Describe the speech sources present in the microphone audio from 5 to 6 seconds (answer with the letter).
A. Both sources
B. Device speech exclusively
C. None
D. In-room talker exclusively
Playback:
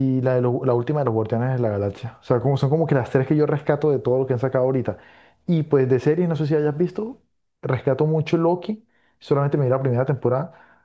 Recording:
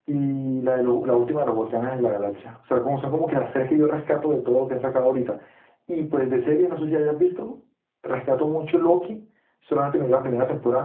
B